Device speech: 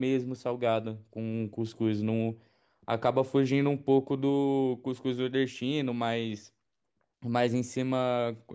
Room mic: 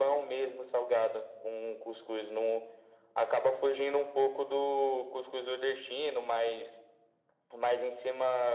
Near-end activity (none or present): none